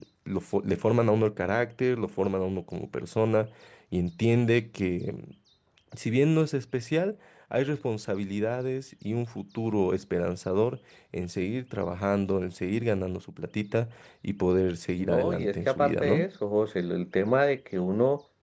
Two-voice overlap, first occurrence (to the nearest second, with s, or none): 15 s